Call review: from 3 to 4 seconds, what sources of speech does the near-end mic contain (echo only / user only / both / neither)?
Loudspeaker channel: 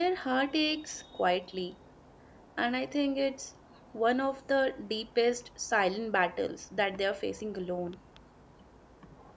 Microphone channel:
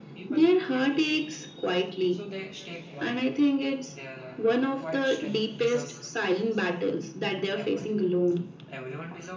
both